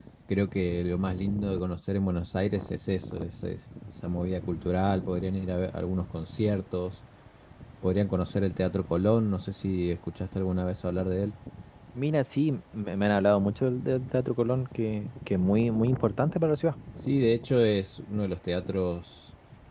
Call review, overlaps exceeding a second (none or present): none